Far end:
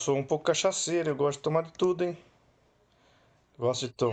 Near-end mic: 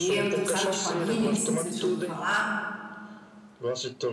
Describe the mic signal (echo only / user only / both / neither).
both